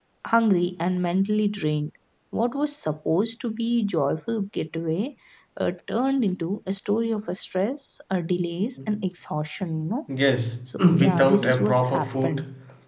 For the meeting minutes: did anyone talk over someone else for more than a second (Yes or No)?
Yes